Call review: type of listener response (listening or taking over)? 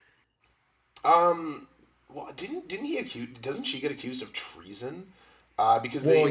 listening